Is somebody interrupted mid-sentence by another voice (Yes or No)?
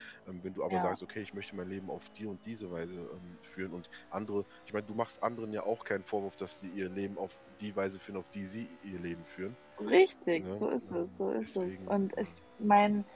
Yes